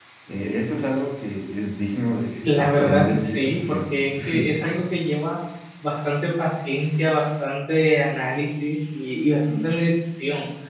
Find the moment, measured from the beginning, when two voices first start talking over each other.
2.4 s

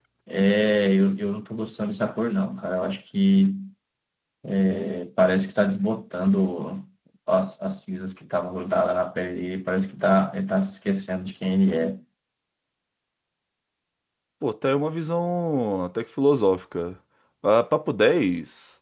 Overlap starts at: none

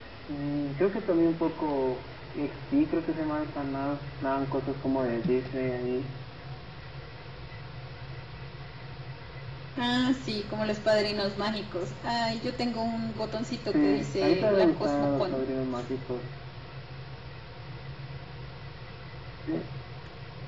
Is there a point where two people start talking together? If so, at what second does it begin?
13.7 s

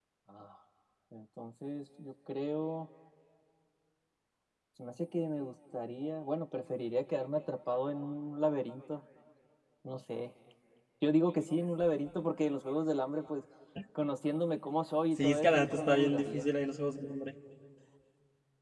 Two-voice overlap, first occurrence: 15.2 s

